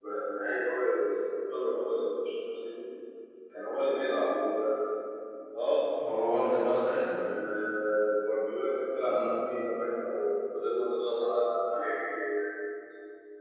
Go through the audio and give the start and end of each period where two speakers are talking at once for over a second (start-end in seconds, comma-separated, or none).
none